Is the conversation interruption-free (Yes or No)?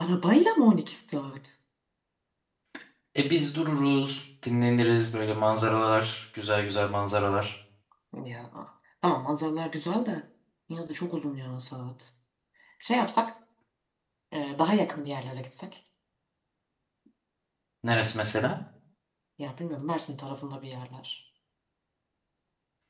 Yes